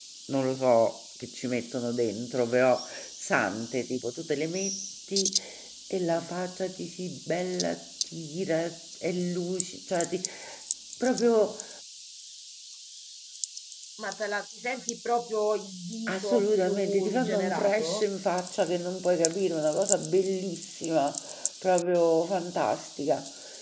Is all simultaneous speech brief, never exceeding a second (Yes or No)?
No